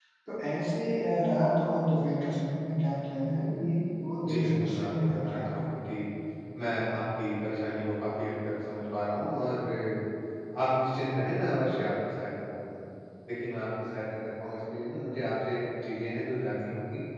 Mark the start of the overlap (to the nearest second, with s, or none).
4 s